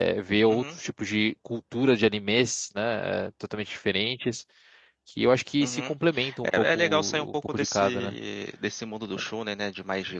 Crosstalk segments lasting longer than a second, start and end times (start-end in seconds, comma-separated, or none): 6.4-8.1